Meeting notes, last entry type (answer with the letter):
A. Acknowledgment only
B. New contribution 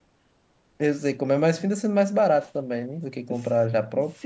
B